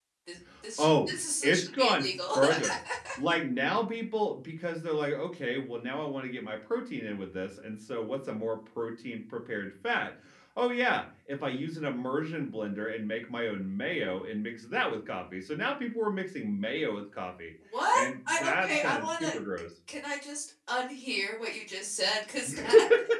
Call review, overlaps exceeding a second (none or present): present